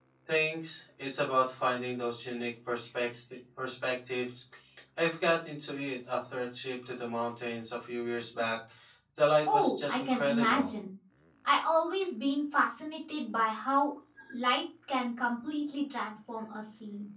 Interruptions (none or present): present